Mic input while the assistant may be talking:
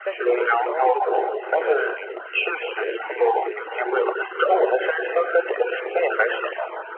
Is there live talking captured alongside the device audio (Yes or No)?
Yes